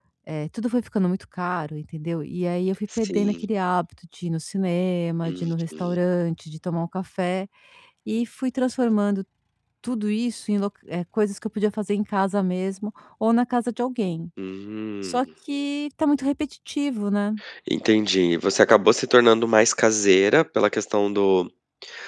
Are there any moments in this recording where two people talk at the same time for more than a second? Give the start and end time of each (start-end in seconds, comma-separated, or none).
none